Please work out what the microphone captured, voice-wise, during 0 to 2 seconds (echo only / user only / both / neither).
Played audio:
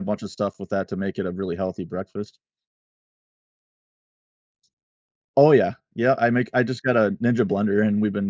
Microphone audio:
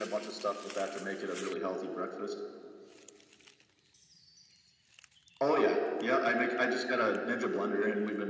echo only